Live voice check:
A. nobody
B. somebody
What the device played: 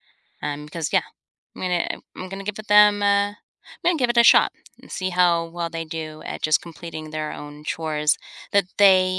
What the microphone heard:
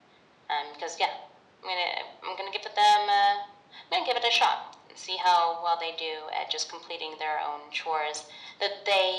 A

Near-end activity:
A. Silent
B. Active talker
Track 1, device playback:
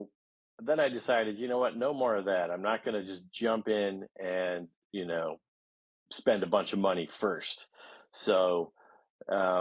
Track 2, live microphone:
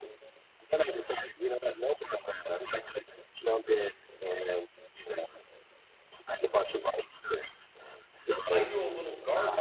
B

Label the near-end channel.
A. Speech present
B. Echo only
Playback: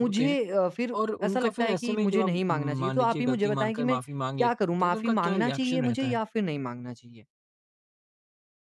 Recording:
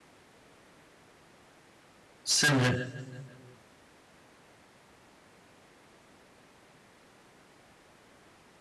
A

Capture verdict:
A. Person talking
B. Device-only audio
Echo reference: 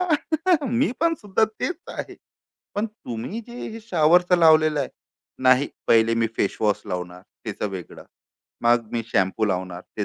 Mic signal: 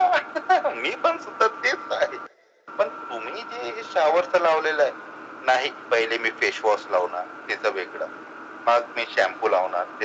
B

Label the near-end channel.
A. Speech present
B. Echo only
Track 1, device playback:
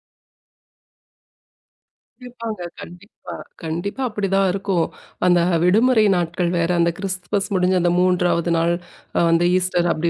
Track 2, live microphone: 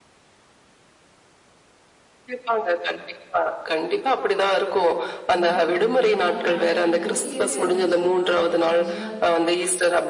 A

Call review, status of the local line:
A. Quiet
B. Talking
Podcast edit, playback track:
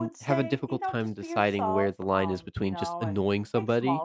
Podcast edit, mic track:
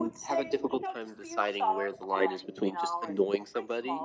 A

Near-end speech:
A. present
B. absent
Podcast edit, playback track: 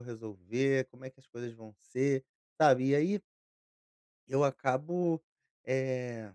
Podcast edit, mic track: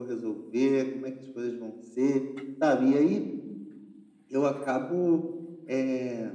B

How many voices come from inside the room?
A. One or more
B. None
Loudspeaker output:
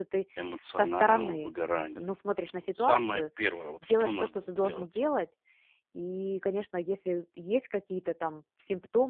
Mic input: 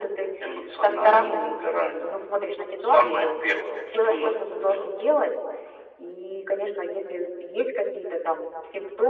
B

